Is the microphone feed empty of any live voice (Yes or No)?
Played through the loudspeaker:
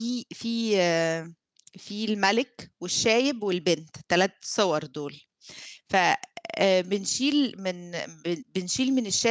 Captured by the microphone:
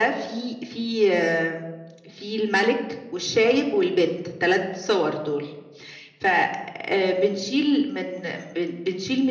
Yes